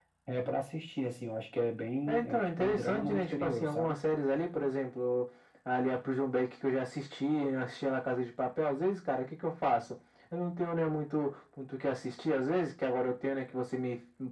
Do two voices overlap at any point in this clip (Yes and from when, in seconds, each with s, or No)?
Yes, from 2.1 s